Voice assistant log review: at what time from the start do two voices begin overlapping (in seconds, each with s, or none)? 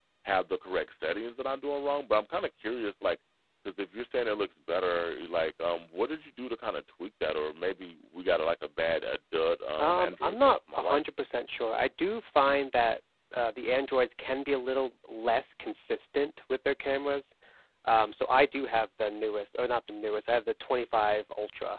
9.8 s